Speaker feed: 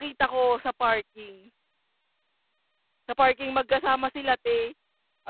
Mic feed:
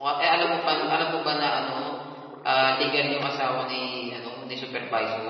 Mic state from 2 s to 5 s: user only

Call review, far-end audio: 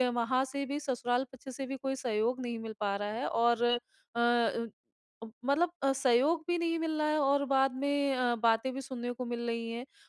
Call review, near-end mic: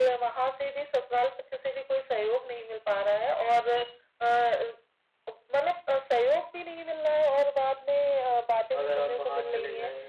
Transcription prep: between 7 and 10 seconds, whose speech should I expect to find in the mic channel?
both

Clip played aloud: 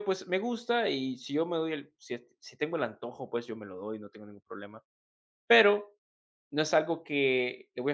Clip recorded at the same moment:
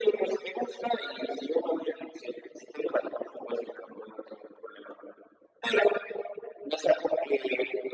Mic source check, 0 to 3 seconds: echo only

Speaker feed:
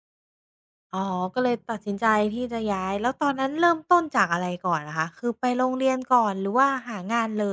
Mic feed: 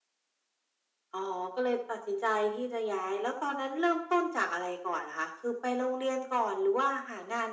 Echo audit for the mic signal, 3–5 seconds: echo only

